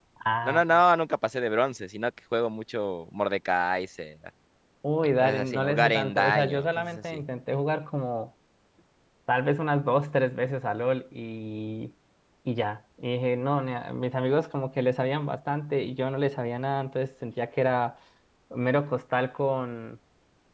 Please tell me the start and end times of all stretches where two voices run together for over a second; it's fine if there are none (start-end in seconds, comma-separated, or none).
5.2-7.2